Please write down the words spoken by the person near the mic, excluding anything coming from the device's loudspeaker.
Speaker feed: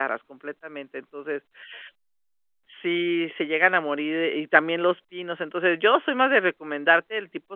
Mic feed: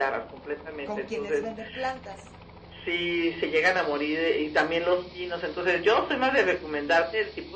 ¿Con quienes venden plantas?

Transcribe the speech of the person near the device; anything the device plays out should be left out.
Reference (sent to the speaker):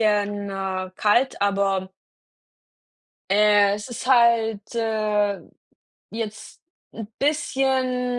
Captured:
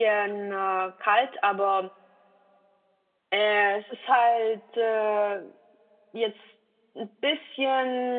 none

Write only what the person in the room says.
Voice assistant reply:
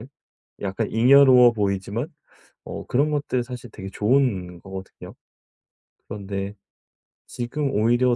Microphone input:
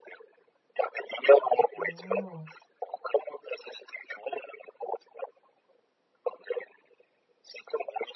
어.

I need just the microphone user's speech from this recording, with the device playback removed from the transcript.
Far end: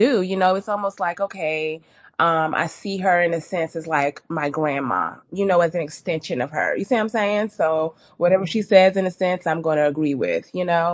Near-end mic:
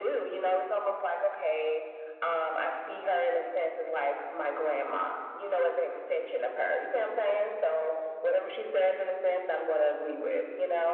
none

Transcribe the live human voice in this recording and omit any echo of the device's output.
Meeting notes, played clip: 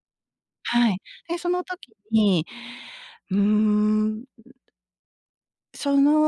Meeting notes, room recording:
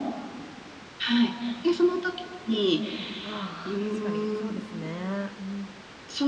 ああ、確かにそうですね。うんう

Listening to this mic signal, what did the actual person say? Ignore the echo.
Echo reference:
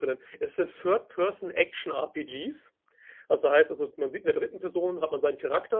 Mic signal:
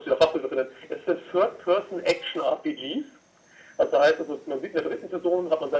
none

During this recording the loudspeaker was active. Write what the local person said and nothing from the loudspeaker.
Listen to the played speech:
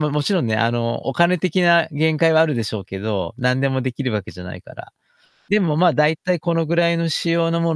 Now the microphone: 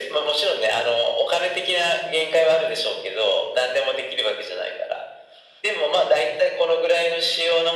none

